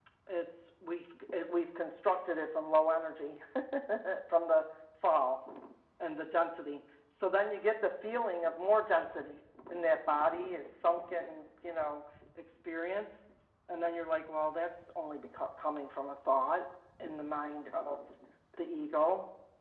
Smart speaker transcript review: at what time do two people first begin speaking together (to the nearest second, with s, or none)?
none